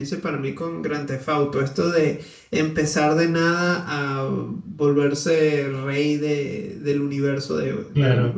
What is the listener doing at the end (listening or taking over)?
listening